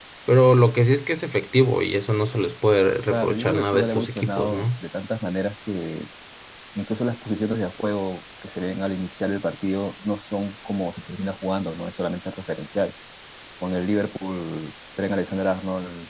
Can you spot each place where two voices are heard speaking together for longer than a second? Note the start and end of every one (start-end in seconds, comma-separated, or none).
3.1-4.7